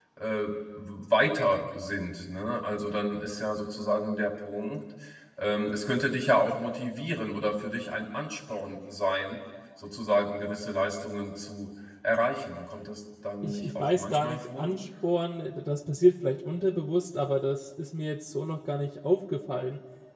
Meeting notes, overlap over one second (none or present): present